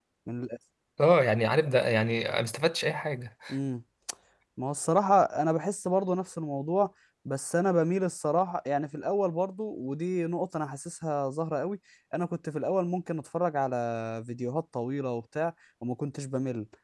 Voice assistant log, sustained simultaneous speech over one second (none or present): none